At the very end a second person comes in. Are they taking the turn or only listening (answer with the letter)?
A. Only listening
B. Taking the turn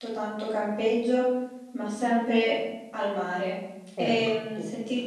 A